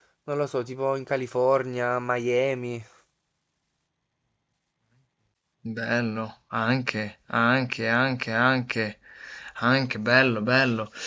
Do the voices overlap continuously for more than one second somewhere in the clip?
No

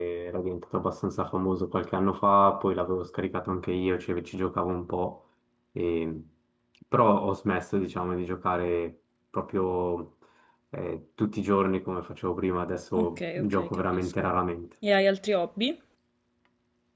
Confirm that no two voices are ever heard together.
No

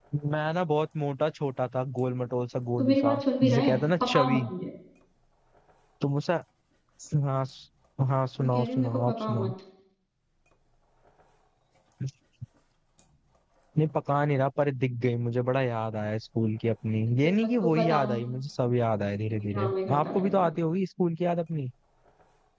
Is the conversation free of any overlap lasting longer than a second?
No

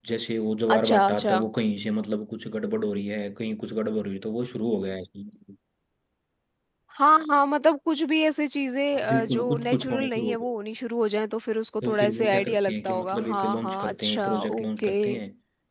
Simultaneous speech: Yes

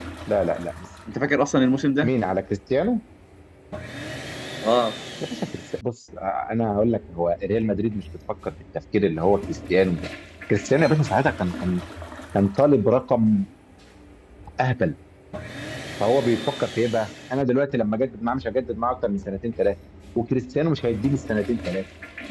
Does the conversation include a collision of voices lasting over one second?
No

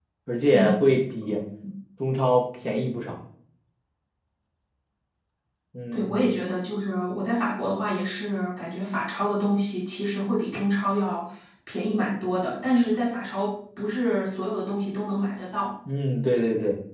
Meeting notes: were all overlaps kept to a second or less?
Yes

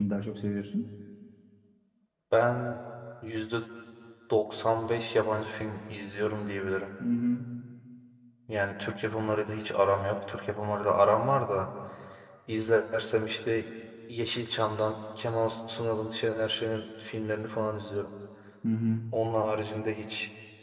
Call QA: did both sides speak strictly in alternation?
Yes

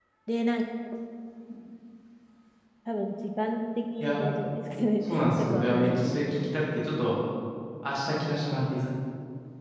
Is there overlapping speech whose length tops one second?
Yes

